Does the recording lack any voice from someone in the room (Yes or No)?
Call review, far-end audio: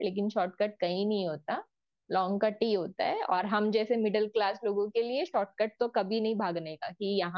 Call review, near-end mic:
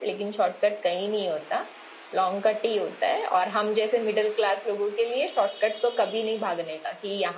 Yes